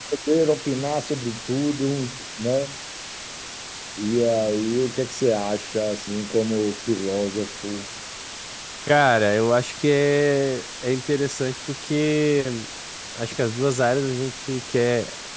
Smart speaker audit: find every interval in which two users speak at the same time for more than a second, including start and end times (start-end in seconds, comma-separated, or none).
none